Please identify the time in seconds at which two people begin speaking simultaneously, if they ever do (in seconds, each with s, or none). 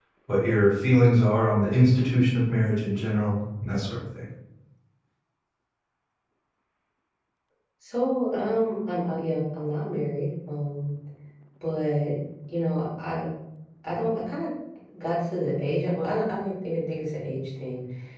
none